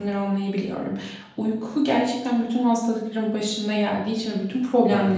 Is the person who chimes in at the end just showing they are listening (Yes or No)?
Yes